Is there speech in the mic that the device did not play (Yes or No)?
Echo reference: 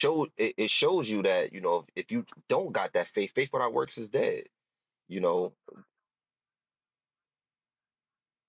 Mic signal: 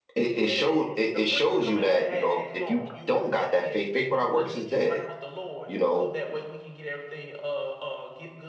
Yes